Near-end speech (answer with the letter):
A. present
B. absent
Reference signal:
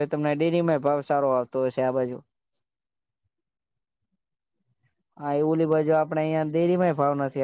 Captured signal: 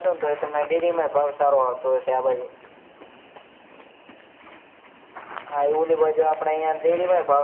B